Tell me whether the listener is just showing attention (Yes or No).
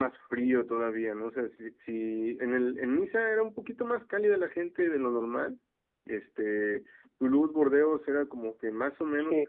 No